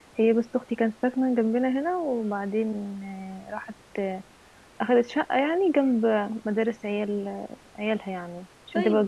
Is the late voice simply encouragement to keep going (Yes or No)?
No